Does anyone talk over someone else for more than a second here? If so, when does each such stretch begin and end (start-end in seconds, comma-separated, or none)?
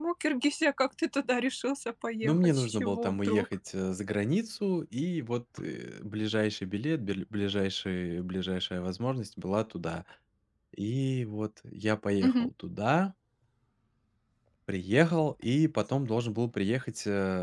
2.2-3.5